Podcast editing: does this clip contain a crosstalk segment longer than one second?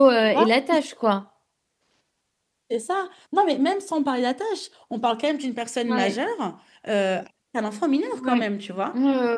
No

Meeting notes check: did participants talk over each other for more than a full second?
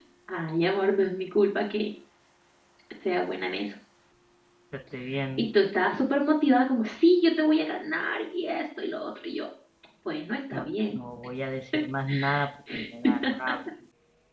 No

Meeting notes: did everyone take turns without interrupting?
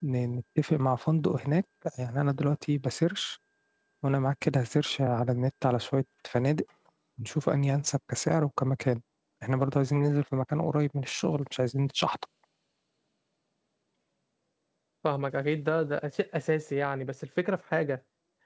Yes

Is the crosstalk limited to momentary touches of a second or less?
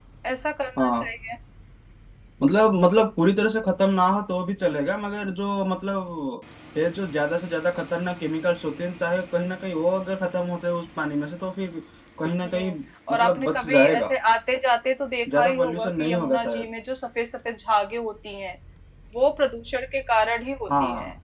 No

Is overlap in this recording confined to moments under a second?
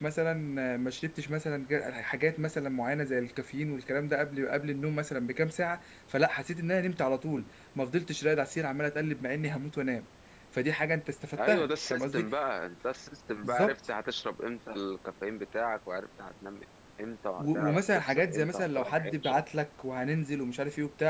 No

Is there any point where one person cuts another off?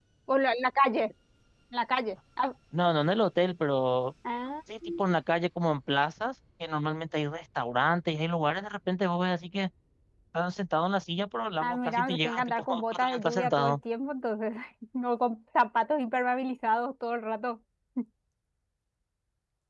Yes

